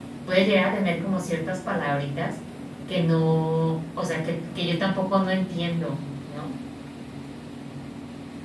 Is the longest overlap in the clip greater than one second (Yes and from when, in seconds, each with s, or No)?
No